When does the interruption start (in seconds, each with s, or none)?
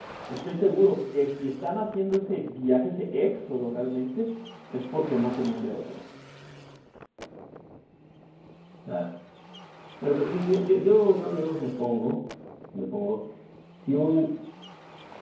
none